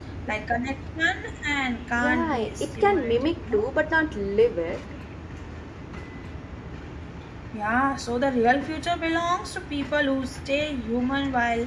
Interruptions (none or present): present